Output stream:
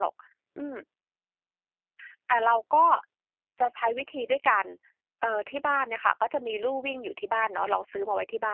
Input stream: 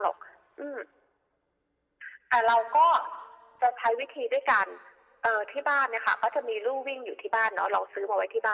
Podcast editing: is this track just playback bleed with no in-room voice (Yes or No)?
Yes